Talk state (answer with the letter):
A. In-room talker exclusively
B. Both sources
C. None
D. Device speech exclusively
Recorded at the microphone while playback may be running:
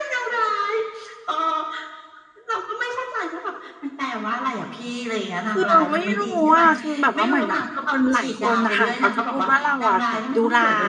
B